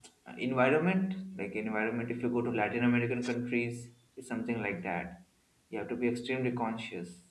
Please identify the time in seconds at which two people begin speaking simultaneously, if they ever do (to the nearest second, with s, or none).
none